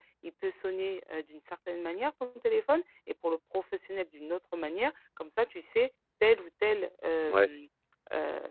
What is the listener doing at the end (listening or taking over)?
listening